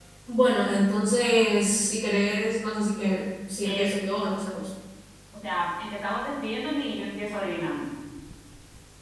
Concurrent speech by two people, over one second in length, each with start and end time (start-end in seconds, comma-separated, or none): none